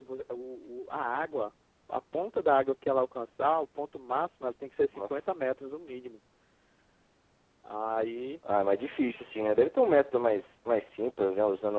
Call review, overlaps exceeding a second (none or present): none